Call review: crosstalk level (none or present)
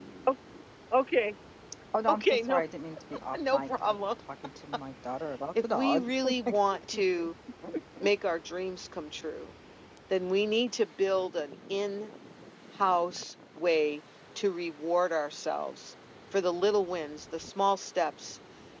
present